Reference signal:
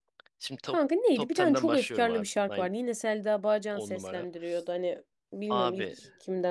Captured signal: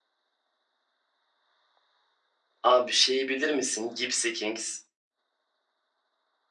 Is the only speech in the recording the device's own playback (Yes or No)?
No